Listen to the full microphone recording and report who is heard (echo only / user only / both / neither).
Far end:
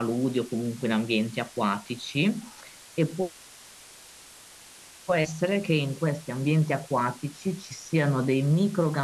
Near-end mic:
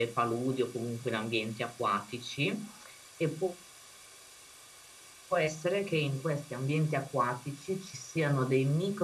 echo only